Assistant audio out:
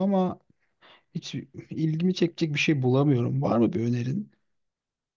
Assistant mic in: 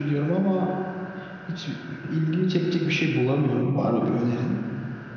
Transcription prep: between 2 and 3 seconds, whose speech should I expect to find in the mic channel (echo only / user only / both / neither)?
echo only